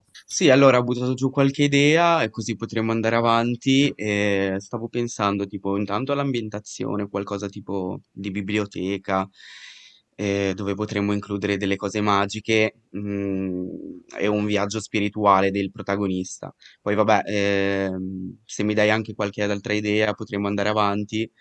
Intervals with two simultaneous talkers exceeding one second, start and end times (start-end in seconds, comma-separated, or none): none